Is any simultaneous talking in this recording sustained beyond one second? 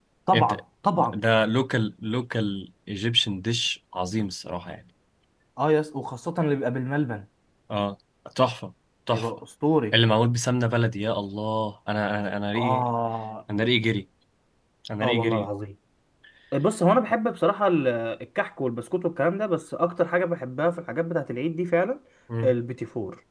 No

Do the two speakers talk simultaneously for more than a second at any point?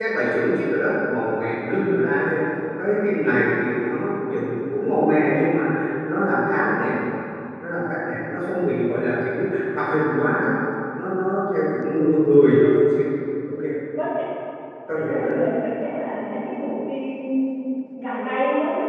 No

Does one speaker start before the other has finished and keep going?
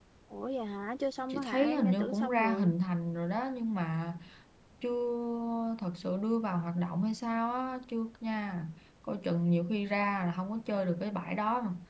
Yes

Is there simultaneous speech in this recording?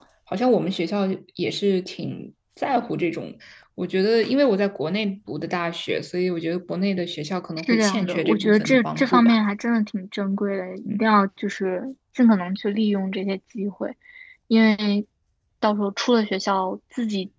Yes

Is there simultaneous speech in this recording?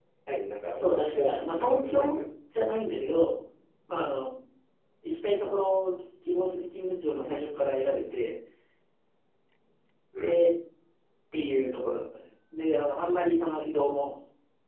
Yes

